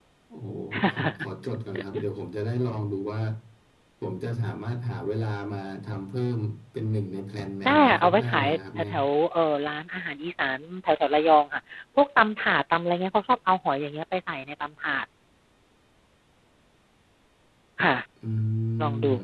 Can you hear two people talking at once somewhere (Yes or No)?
Yes